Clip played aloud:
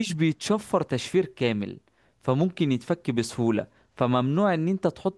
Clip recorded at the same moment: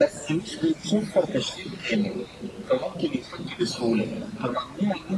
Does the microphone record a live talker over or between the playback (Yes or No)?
No